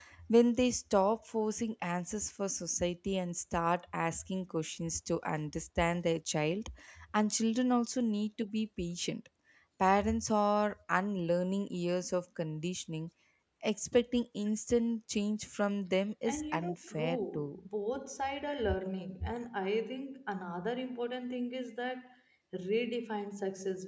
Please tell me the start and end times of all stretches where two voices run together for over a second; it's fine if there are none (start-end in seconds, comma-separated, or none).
16.2-17.7